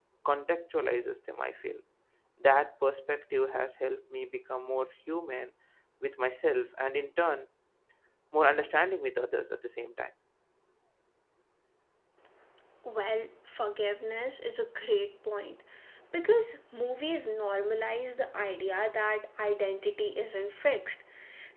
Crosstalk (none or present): none